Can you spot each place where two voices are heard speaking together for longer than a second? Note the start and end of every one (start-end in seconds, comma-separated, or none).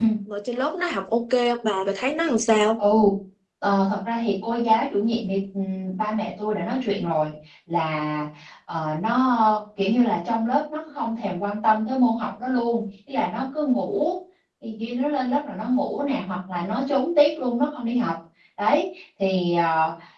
none